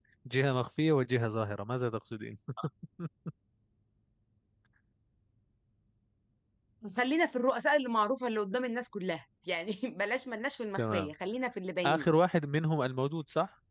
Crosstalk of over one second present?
No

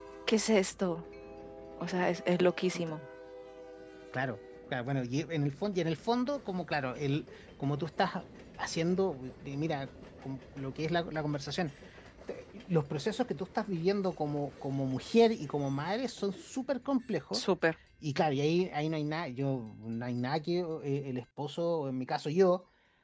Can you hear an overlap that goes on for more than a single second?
No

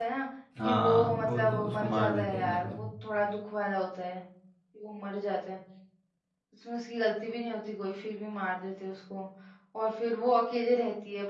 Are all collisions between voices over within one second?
No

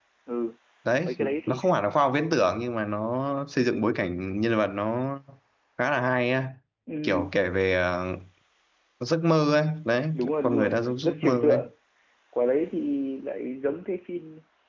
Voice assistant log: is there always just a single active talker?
No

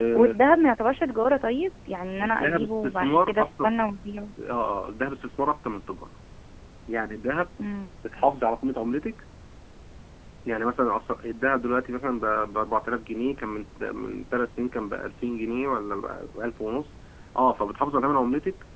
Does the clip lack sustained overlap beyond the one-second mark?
No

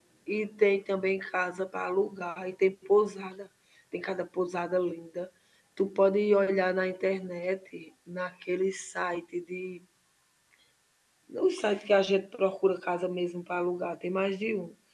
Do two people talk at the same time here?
No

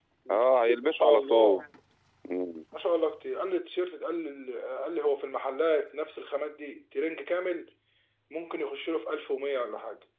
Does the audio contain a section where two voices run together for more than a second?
Yes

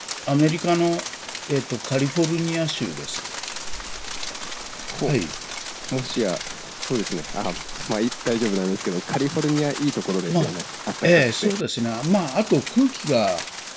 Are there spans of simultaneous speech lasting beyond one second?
No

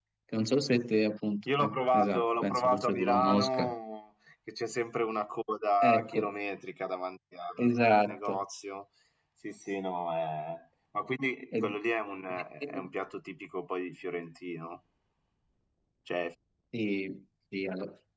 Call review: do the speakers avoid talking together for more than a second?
No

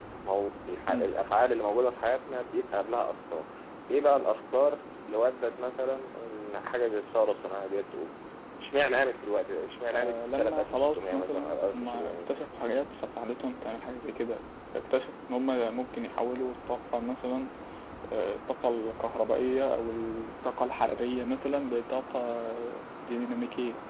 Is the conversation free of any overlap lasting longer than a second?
No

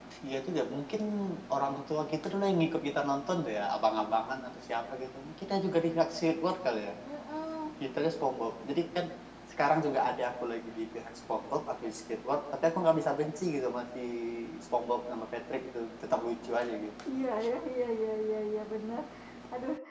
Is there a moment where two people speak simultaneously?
No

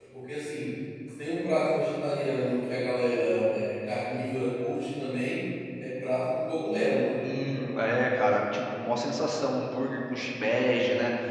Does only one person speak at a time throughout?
Yes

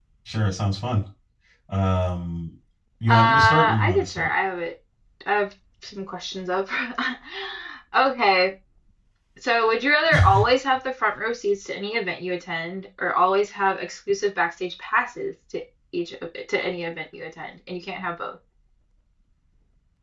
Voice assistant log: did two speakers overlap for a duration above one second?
Yes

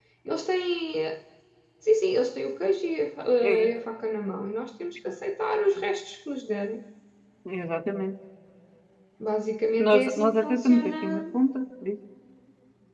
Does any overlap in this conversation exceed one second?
Yes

